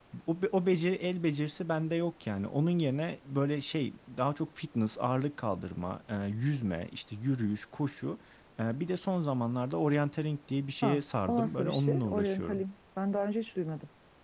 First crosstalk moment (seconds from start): 10.8 s

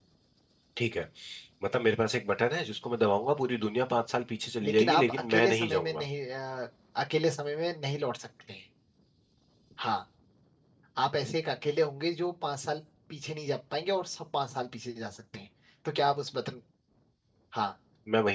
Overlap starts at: 4.6 s

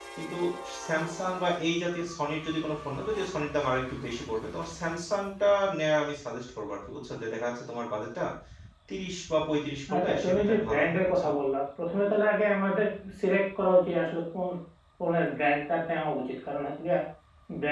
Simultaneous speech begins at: 9.9 s

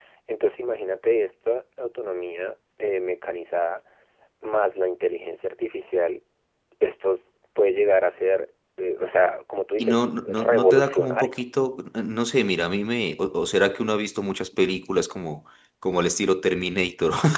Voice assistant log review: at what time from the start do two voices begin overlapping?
9.8 s

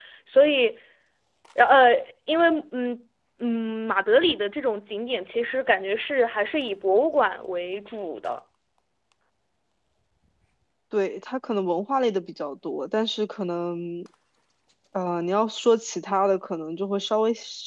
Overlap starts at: none

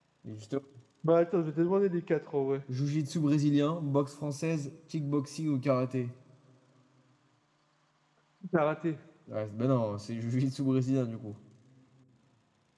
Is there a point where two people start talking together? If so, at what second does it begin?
none

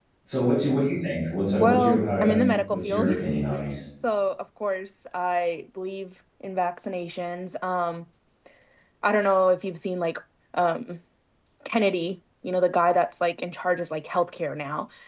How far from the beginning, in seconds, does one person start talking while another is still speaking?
1.6 s

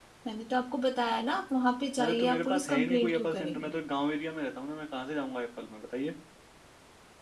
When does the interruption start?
2.0 s

